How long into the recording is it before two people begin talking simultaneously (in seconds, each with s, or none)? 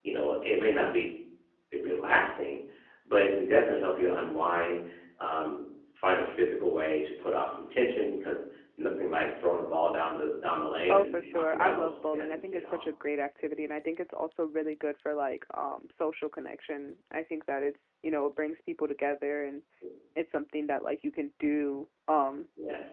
10.9 s